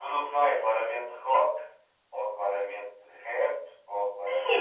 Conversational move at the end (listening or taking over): taking over